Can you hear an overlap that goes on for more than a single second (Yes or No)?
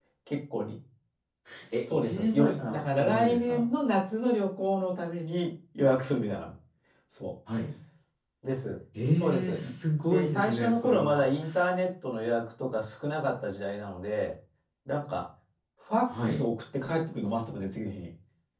Yes